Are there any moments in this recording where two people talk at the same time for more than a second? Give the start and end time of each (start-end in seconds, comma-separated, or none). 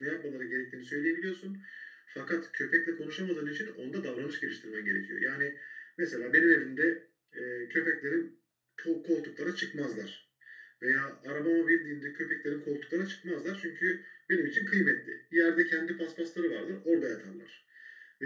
none